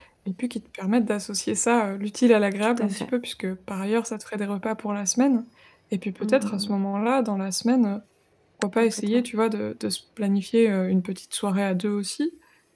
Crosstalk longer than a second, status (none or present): none